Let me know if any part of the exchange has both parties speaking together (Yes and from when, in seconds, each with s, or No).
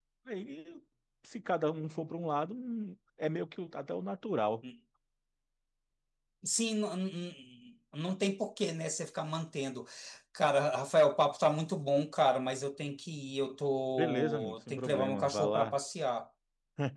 Yes, from 13.9 s